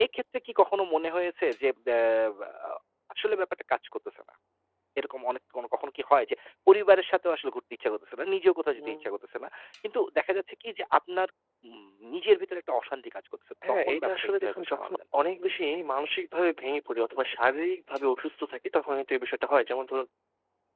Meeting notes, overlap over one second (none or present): present